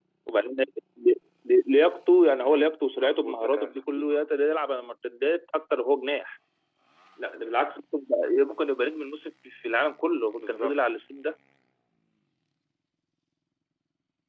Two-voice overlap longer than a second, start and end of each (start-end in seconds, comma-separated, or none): 2.4-4.1